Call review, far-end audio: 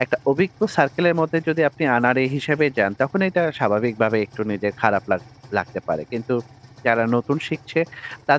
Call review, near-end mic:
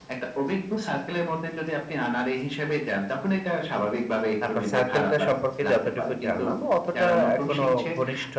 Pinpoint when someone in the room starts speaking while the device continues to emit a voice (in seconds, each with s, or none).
4.4 s